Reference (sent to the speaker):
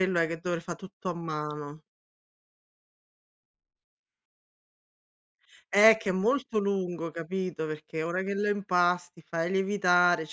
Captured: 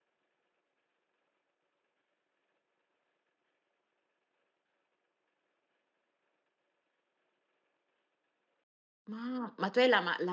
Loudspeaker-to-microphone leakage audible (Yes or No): No